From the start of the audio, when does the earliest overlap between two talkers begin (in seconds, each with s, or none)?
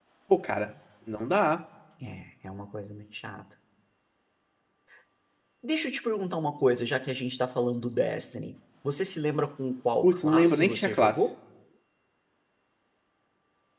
10.0 s